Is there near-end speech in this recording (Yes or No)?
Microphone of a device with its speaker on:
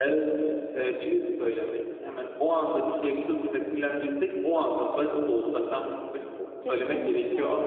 Yes